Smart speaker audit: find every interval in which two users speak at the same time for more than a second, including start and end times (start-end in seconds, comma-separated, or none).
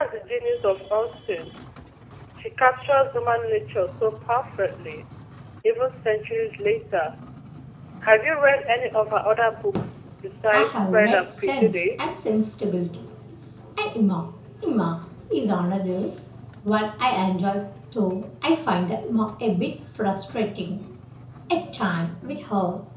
10.5-12.2